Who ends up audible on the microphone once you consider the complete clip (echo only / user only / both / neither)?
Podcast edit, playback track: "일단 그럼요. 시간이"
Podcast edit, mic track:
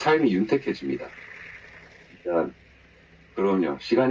echo only